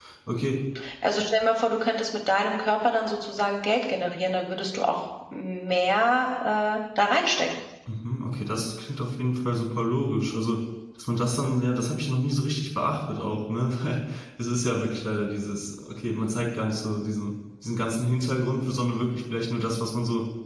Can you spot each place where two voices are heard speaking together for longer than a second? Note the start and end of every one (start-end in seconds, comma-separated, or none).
none